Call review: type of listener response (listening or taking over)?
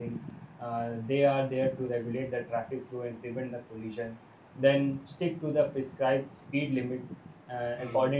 listening